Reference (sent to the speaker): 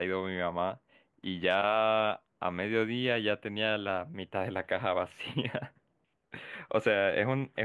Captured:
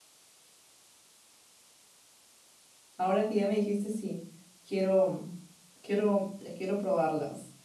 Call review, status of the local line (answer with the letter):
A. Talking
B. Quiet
A